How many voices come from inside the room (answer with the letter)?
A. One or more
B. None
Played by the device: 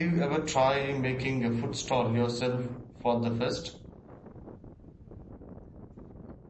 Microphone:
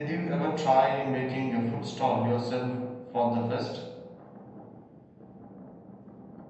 B